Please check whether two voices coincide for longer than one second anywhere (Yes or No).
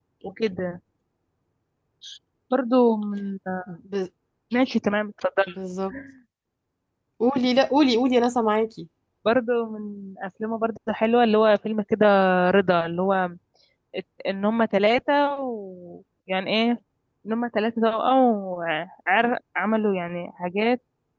No